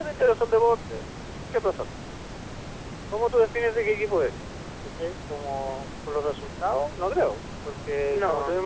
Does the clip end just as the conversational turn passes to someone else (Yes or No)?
No